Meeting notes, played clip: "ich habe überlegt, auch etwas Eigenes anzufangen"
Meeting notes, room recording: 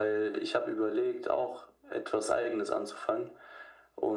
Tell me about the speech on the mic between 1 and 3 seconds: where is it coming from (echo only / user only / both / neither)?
echo only